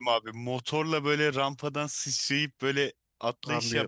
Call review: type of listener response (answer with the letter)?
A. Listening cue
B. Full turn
B